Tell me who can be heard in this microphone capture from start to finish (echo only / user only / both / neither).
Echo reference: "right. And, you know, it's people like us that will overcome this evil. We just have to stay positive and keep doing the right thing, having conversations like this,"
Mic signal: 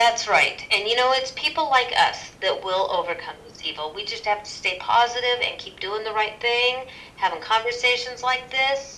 echo only